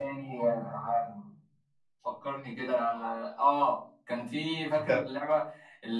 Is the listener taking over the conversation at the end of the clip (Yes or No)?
No